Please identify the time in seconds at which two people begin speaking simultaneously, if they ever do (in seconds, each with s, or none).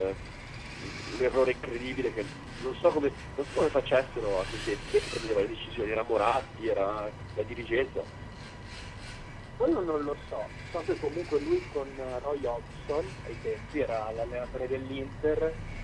none